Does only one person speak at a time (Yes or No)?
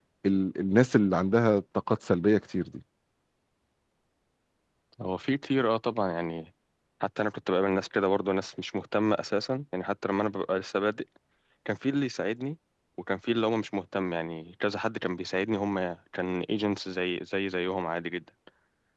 Yes